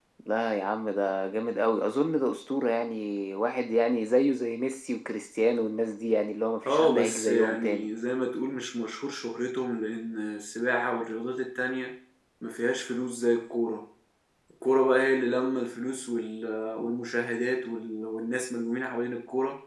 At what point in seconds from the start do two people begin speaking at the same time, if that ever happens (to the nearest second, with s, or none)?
7 s